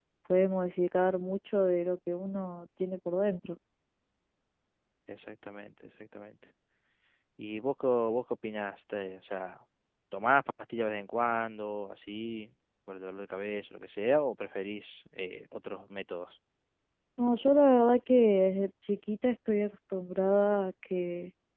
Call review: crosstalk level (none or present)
none